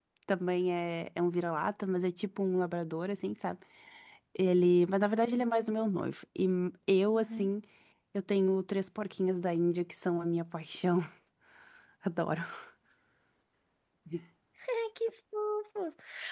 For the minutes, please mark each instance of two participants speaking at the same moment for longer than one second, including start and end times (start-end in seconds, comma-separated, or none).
none